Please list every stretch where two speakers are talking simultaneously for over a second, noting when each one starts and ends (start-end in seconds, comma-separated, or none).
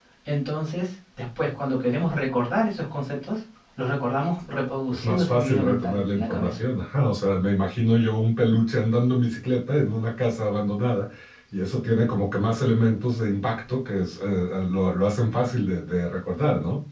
4.9-6.6